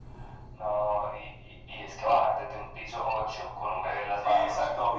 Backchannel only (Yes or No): No